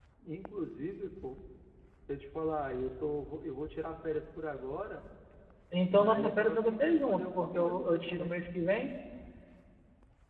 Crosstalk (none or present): present